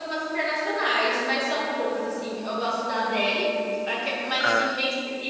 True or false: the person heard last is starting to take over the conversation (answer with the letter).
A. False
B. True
A